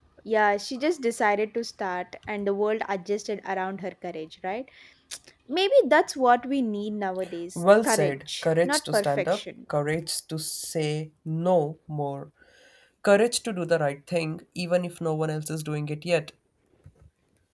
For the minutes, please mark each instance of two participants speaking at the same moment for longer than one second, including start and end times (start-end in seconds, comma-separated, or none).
7.6-9.4